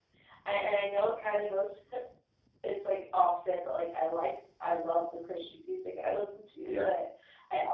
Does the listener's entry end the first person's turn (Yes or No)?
No